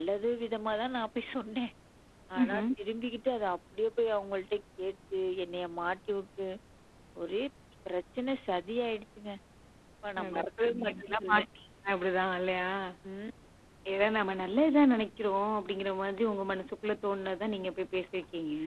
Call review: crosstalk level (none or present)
present